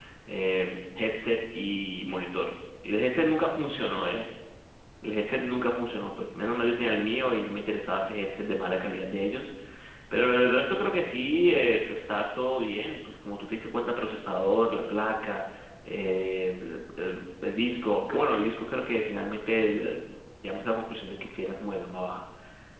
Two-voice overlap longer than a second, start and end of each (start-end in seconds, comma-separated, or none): none